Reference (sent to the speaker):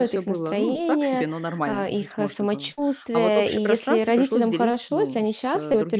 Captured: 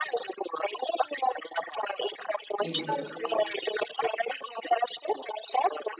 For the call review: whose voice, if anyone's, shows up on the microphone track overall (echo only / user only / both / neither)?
both